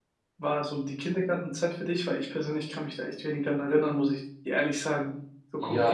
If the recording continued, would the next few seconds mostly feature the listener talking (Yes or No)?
Yes